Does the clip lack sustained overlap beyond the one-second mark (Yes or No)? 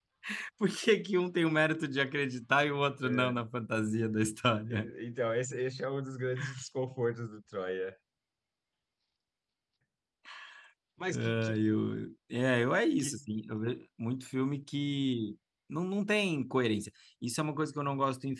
Yes